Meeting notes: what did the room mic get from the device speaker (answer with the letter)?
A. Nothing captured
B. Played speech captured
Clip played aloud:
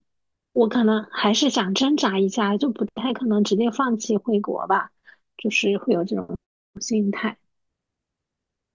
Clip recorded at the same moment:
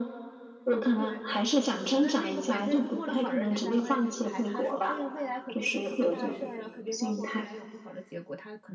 B